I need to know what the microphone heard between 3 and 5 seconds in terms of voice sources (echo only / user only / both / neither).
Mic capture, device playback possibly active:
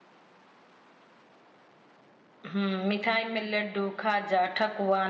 user only